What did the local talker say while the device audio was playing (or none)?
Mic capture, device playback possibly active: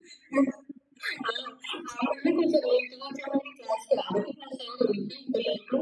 none